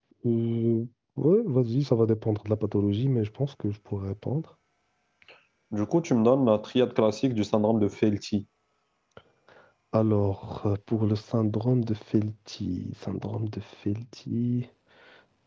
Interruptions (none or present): none